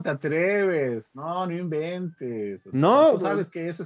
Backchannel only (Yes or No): Yes